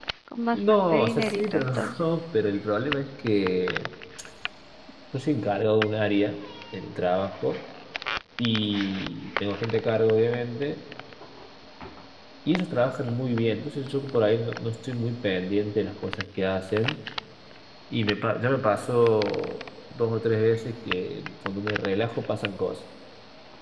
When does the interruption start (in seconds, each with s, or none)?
0.5 s